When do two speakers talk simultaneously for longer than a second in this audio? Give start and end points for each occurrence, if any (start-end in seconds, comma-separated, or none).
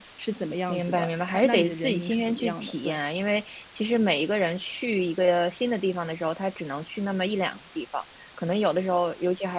0.7-3.0